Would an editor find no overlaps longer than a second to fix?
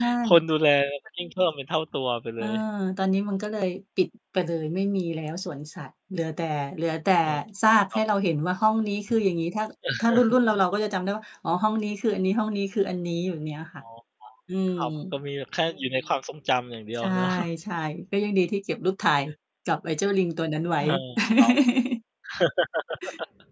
Yes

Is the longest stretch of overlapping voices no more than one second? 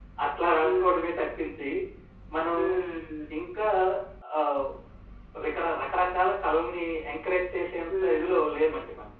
Yes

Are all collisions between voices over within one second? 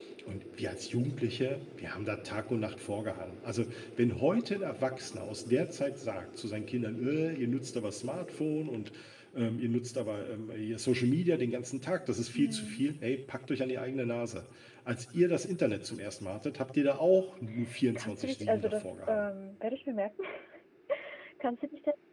No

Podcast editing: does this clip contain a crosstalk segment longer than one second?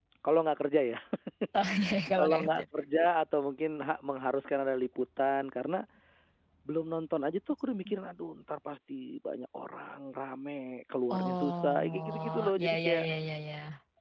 Yes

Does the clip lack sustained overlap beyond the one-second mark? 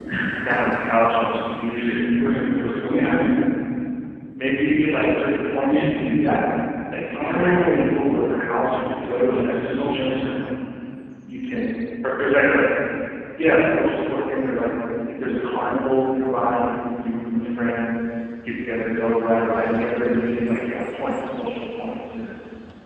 No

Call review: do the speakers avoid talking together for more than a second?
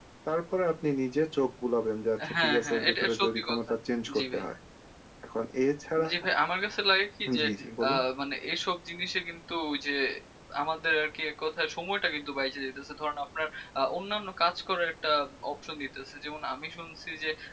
No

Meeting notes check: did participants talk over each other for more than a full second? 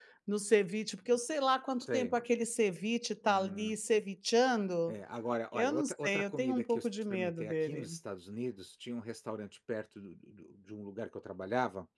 Yes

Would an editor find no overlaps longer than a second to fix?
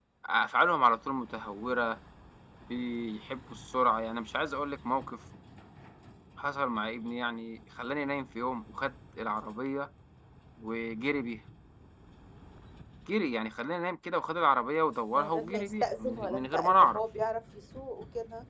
No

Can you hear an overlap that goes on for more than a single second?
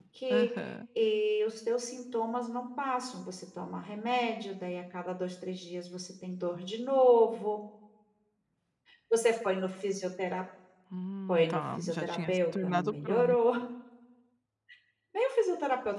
Yes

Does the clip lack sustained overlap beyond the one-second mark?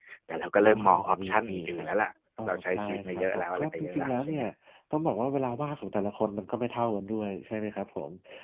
No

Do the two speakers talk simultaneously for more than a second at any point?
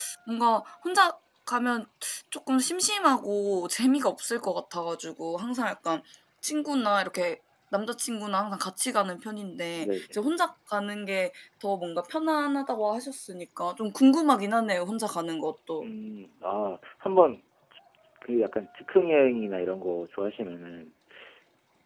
No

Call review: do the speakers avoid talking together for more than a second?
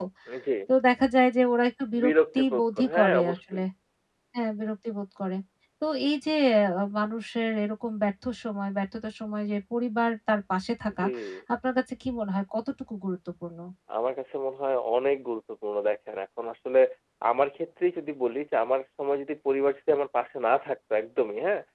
No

